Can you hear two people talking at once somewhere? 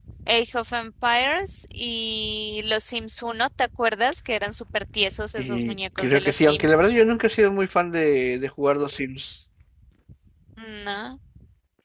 Yes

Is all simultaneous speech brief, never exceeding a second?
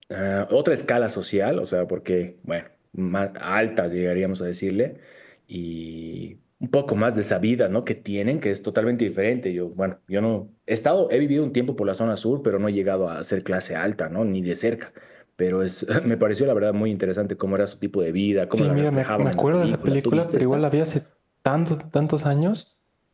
No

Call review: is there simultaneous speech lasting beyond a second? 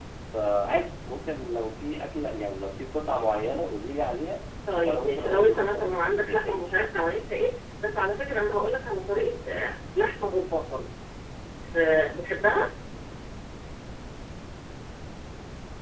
Yes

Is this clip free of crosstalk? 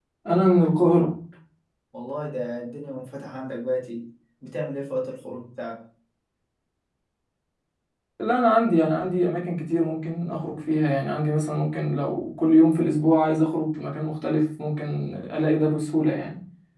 Yes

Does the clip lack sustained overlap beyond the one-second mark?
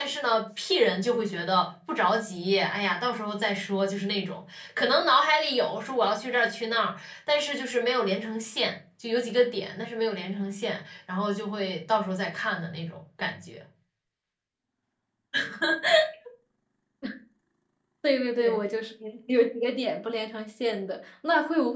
Yes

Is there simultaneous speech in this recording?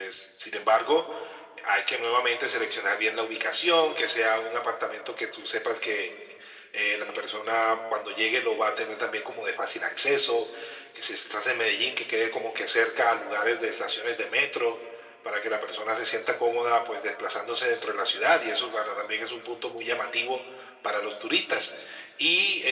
No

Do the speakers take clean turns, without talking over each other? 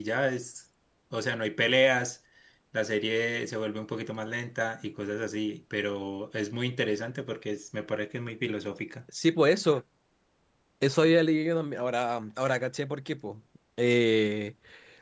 Yes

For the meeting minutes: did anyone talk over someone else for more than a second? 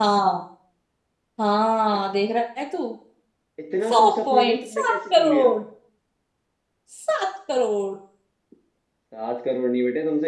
Yes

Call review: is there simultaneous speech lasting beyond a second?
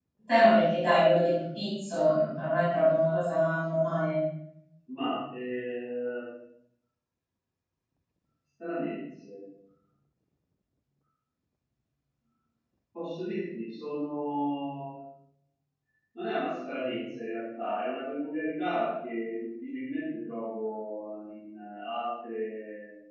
No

